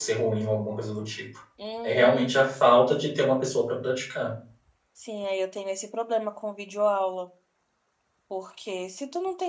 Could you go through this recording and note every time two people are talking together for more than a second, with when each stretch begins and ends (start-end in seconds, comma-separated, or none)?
none